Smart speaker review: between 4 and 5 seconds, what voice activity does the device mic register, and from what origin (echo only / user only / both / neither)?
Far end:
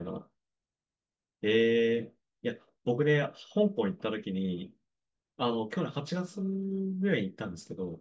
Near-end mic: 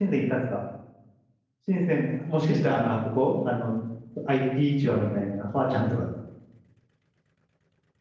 user only